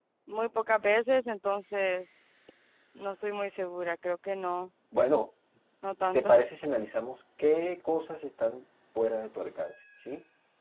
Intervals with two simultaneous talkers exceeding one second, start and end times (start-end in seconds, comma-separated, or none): none